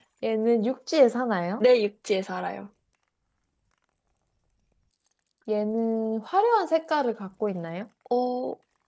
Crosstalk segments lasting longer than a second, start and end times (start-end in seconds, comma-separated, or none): none